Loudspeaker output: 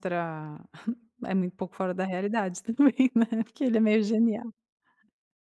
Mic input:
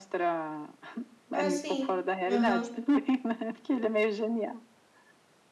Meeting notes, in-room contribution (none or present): present